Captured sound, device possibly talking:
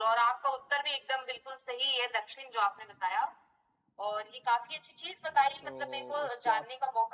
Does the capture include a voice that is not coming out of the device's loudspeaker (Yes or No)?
Yes